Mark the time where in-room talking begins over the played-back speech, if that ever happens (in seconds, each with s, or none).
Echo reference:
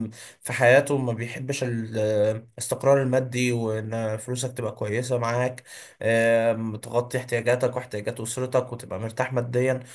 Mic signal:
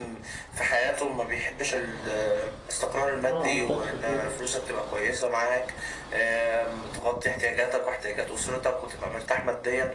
3.3 s